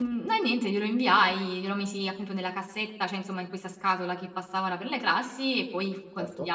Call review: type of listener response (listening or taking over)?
listening